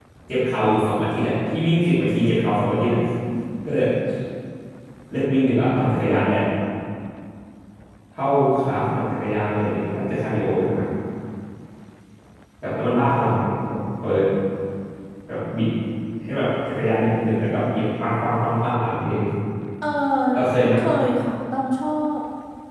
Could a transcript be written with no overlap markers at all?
Yes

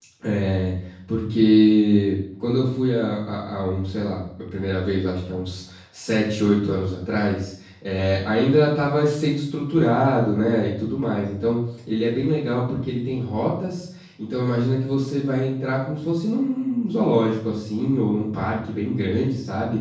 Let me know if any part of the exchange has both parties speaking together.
No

